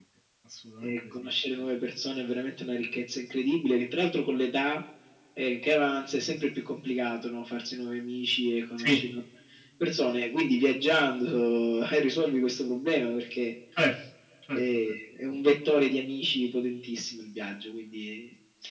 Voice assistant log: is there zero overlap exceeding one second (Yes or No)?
Yes